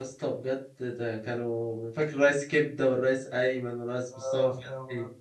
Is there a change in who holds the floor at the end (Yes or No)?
Yes